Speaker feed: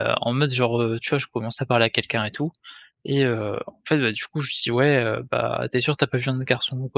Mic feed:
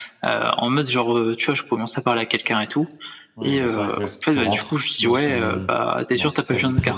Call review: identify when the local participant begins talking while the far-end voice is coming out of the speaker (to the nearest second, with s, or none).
3 s